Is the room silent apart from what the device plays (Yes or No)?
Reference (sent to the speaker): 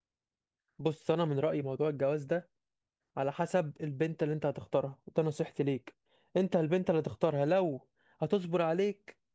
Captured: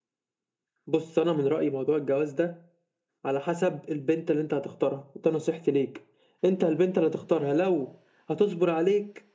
Yes